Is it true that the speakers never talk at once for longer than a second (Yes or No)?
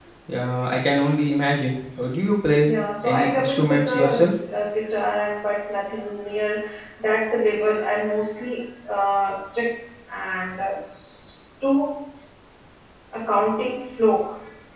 No